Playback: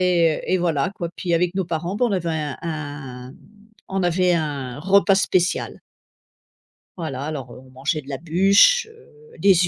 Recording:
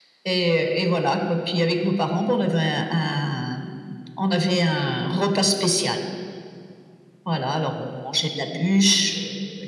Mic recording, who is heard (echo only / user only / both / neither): echo only